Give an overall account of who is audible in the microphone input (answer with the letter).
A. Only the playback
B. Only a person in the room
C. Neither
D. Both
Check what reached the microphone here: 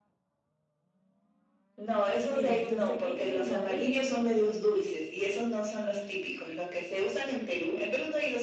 D